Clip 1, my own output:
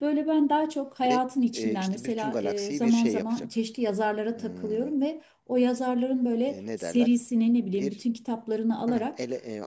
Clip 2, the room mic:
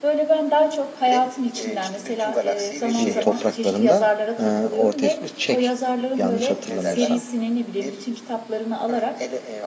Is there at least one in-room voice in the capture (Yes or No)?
Yes